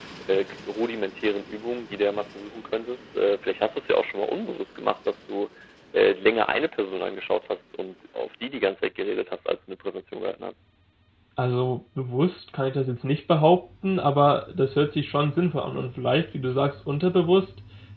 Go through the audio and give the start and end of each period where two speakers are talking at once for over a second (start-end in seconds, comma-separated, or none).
none